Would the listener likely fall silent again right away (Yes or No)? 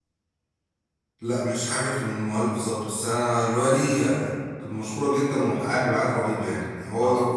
Yes